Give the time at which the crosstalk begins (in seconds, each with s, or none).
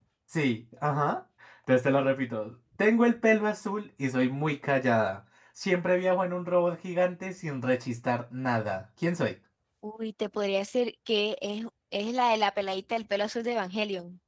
none